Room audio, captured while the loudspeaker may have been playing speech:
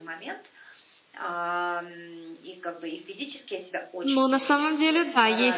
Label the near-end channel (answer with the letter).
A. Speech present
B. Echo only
A